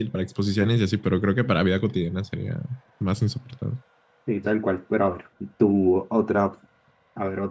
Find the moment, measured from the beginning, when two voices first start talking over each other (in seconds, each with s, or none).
none